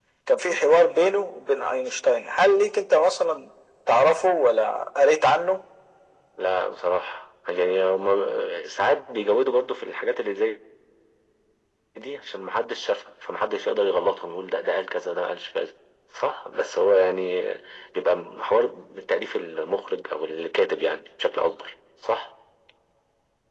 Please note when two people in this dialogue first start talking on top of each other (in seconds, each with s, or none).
none